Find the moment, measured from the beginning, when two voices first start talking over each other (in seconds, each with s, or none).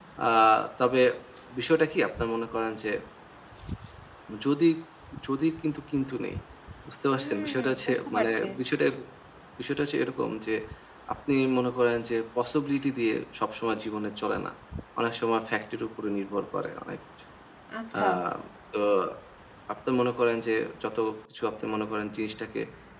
7.2 s